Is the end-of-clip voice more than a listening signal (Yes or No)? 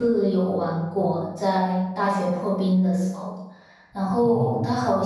No